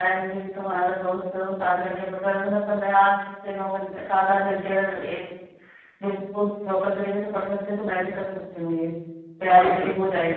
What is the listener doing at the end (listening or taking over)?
taking over